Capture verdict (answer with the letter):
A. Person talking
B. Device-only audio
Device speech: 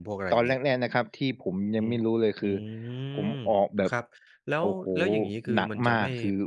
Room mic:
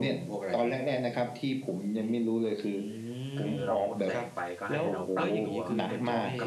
A